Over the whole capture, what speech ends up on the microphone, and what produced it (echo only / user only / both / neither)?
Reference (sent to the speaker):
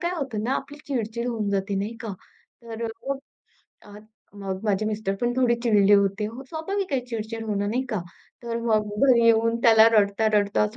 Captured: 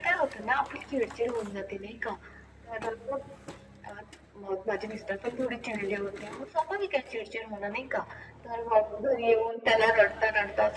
echo only